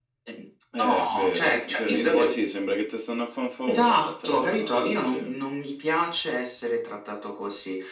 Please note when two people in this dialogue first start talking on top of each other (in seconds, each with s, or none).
0.8 s